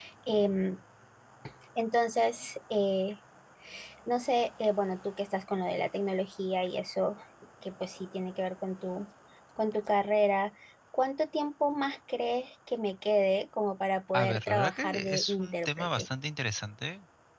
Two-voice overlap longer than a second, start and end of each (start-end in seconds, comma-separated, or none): 14.1-16.1